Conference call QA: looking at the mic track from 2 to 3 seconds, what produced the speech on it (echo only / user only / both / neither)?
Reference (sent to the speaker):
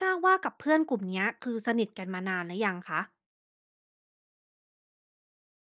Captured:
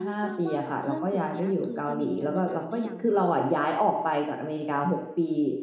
both